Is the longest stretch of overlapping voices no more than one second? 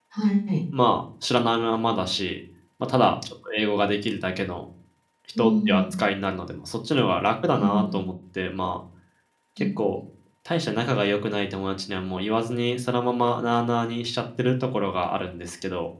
Yes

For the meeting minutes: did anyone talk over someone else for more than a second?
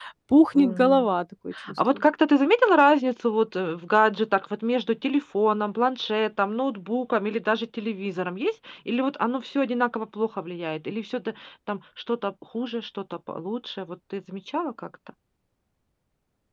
No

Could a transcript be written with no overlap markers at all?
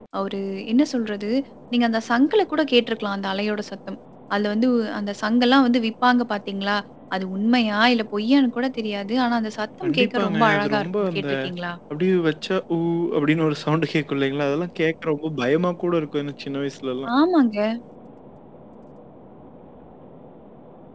No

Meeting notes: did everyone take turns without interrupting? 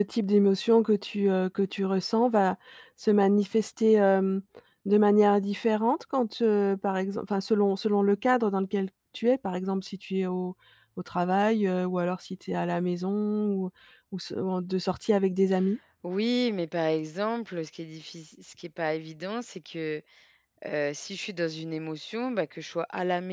Yes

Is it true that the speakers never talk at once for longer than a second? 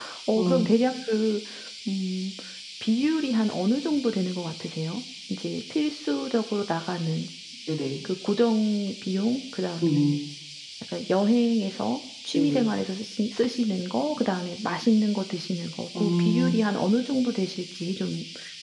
Yes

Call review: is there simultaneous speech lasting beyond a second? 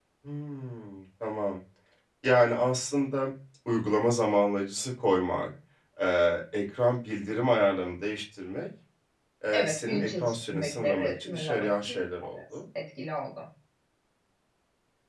Yes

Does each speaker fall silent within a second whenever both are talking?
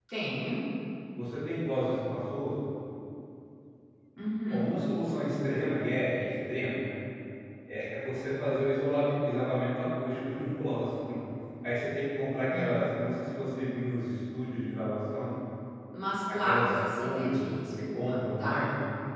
No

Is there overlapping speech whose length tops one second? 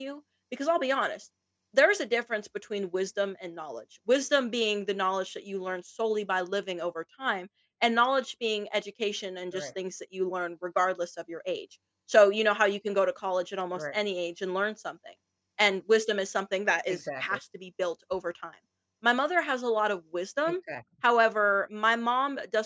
No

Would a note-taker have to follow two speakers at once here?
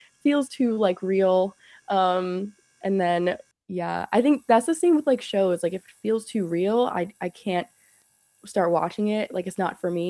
No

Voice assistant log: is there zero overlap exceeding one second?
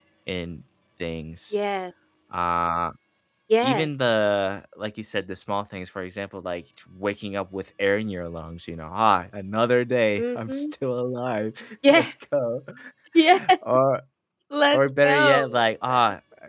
No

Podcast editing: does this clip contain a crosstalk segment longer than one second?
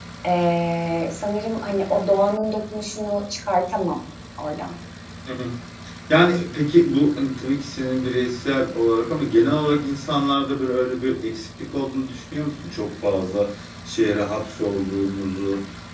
No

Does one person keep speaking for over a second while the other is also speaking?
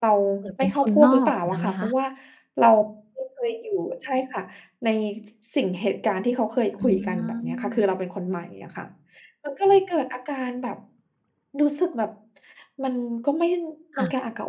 Yes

